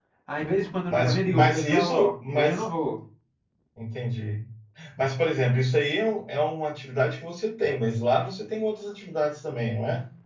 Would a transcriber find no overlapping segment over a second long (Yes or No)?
No